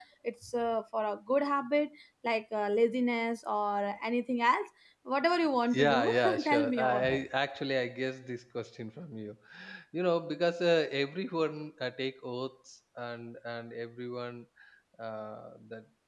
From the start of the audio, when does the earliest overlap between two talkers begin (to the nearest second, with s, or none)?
6 s